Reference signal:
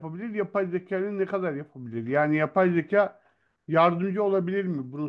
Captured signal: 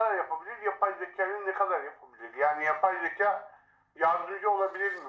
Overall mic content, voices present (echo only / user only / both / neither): echo only